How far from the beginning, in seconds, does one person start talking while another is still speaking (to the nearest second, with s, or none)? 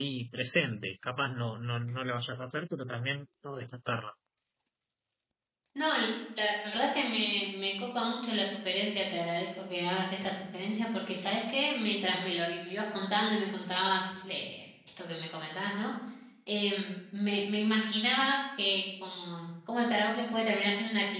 none